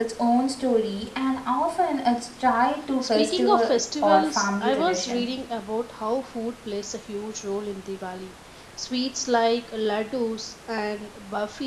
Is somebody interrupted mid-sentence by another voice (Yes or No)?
Yes